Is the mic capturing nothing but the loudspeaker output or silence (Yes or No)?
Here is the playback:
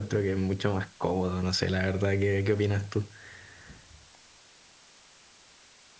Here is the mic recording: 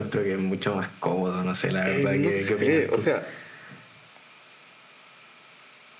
No